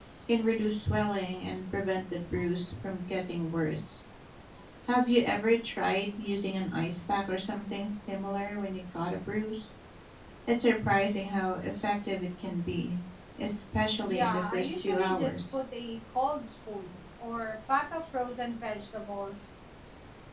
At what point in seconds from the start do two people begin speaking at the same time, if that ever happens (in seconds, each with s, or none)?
14.1 s